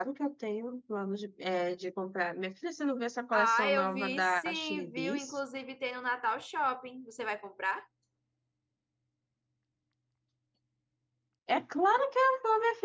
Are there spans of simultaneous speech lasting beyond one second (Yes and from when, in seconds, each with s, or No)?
Yes, from 3.3 s